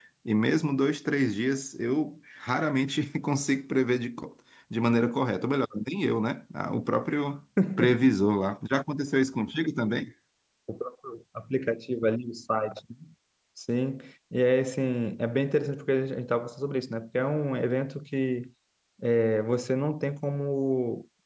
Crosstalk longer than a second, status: none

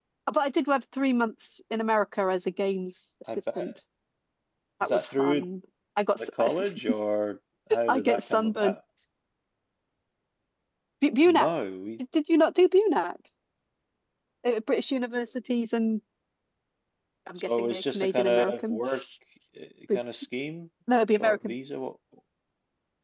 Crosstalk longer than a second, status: present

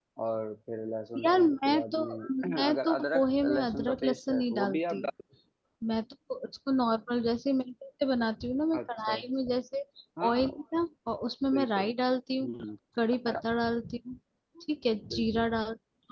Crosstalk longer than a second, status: present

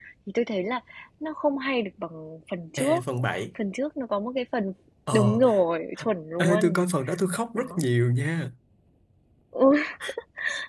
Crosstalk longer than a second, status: none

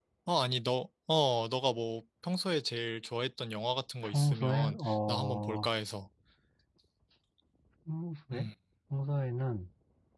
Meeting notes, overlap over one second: present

